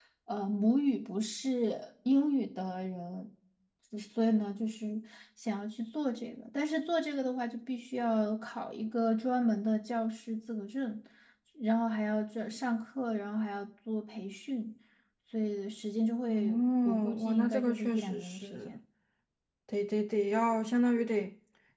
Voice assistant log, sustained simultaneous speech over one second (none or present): present